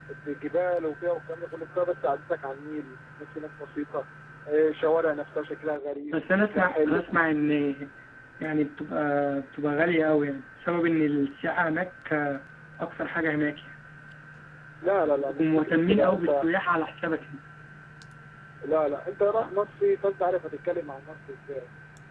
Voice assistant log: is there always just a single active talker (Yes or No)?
No